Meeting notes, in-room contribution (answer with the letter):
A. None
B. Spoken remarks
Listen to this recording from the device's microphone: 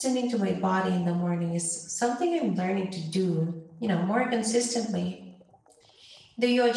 B